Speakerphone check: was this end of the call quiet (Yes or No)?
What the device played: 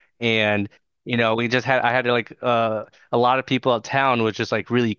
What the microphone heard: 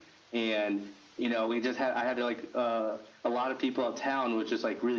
Yes